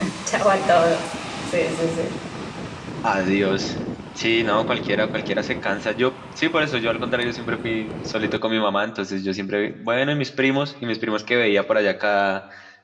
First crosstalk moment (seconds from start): none

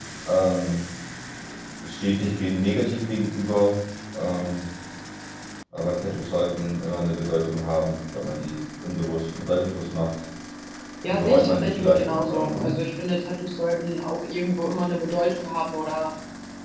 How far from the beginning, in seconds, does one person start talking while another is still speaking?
11.1 s

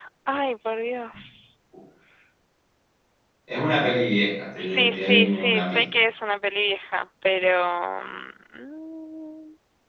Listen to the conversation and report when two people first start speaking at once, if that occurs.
4.6 s

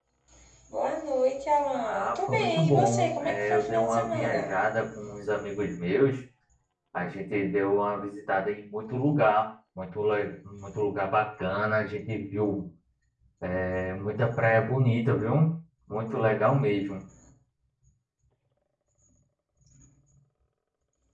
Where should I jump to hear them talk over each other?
1.7 s

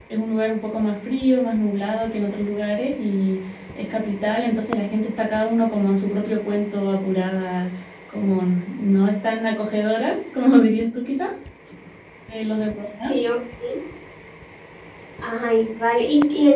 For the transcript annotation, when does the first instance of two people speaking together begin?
none

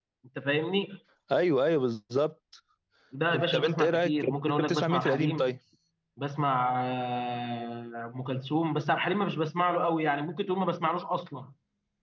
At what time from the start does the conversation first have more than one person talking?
3.3 s

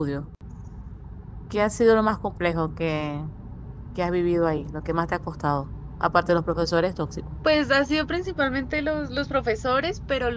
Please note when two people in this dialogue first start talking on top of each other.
none

